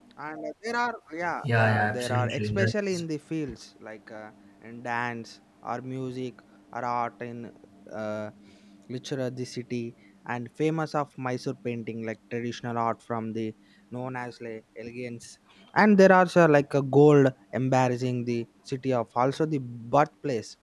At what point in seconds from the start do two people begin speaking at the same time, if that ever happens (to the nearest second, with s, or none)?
1 s